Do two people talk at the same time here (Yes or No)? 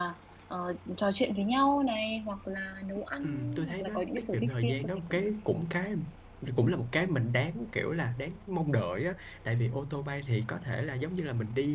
Yes